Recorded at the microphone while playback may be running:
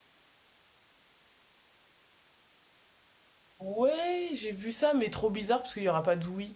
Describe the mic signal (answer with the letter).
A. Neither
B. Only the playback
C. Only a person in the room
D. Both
C